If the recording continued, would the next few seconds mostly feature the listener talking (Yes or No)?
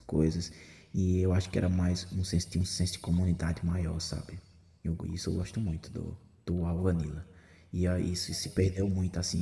No